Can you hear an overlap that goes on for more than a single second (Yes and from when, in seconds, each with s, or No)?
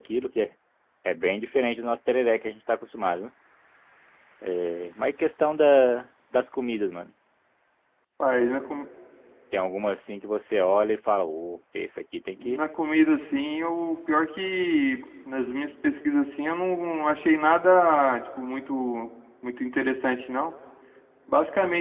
No